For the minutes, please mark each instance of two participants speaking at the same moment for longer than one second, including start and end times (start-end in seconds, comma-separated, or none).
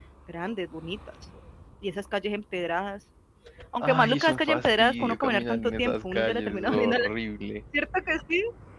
3.8-7.0